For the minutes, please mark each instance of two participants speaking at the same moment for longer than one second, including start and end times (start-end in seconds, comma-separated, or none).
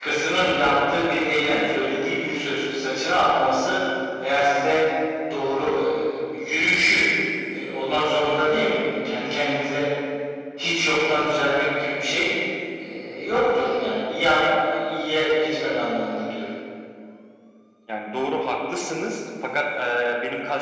none